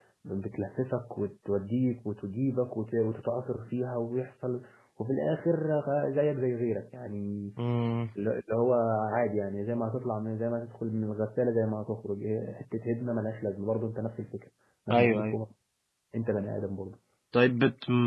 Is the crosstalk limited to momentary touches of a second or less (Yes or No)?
Yes